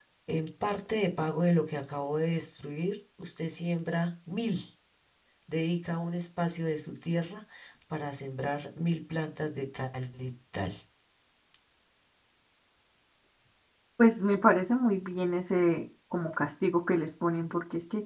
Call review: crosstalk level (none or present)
none